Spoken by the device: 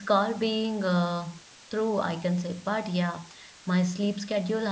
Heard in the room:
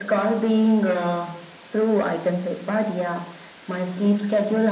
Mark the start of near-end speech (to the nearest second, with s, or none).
none